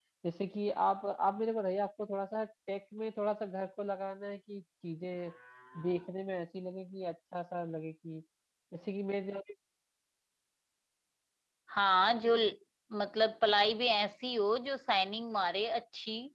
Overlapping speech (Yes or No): No